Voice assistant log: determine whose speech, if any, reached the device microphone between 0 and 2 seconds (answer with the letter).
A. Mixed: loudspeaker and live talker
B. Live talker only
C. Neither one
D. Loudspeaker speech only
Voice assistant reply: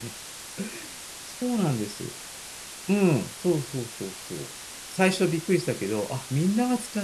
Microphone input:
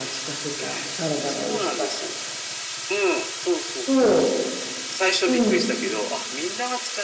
A